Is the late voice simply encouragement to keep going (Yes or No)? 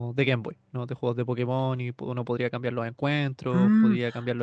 No